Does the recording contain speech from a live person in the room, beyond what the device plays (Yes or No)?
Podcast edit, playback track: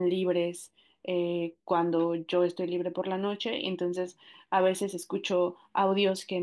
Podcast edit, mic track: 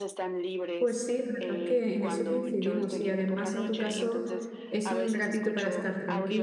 Yes